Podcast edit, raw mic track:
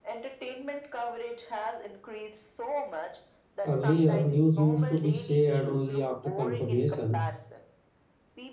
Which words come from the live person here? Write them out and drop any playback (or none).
Earlier, news used to be shared only after confirmation,